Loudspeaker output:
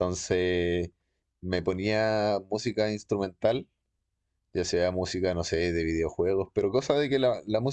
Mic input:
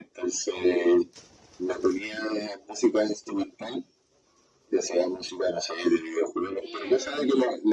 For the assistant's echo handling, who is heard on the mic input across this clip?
both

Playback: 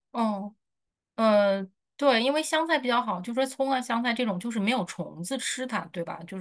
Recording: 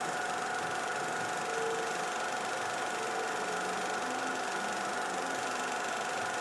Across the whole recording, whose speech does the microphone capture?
neither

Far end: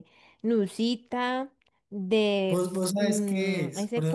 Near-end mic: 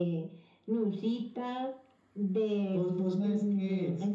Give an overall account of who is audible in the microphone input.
echo only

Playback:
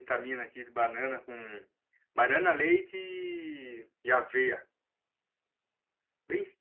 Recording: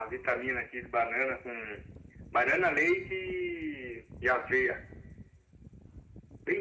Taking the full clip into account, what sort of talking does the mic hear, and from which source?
echo only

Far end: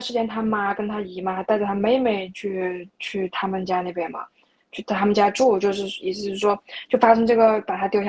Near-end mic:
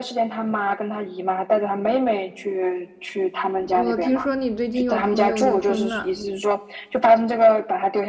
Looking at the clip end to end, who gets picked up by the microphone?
both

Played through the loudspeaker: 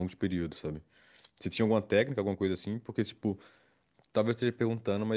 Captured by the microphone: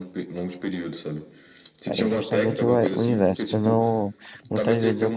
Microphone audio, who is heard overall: both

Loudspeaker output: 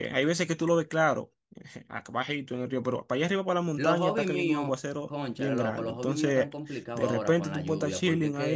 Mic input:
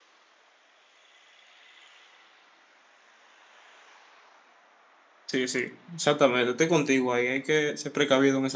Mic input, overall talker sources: user only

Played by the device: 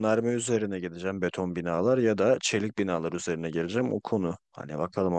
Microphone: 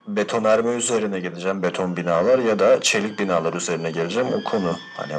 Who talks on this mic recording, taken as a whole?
echo only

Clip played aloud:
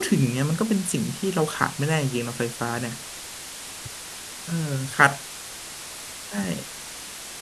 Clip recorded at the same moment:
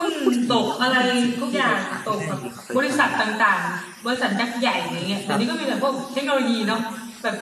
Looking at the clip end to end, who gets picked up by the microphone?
both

